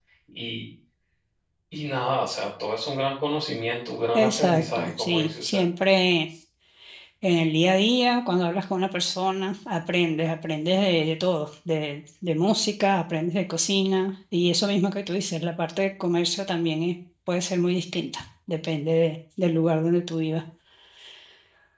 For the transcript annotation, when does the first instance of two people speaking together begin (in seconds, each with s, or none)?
4.1 s